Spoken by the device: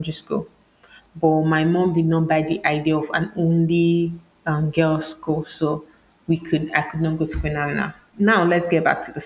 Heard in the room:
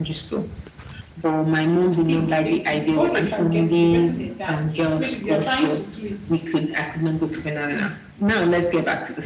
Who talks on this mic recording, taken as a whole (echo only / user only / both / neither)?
both